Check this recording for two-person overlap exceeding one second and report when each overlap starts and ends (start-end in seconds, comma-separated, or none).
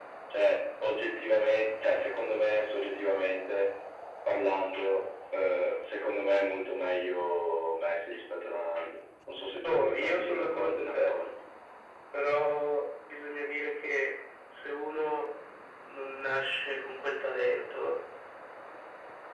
9.6-11.1